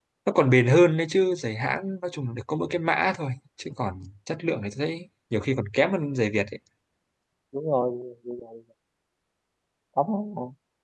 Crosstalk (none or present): none